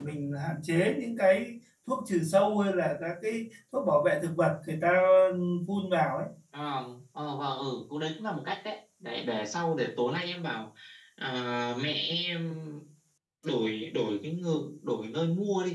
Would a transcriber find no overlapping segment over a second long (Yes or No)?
Yes